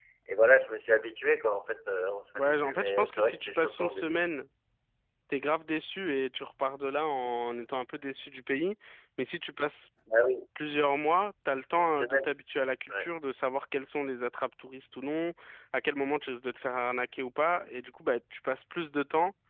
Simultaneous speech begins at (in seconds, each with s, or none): 2.4 s